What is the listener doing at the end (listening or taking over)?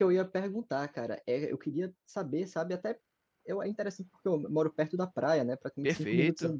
listening